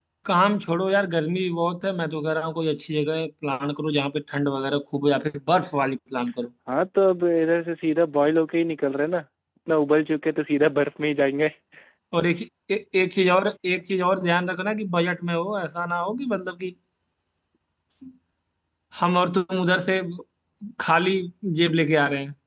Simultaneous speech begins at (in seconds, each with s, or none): none